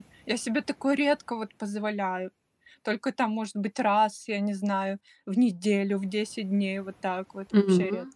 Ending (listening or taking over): taking over